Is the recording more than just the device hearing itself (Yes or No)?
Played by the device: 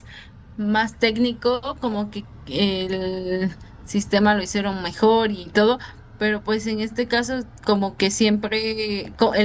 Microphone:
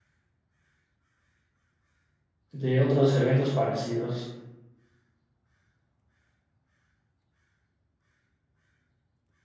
Yes